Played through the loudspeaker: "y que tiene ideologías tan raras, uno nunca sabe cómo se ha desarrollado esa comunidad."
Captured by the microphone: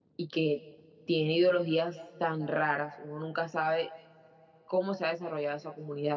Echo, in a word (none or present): present